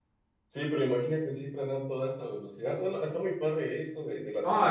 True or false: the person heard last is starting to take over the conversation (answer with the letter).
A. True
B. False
A